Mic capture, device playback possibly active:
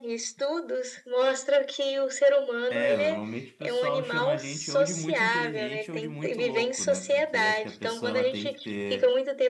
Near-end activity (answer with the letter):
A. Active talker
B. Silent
A